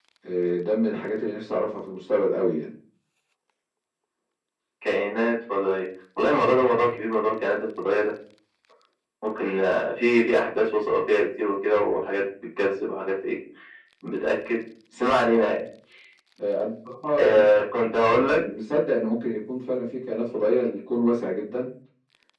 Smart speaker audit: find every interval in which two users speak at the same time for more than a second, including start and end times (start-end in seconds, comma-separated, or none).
none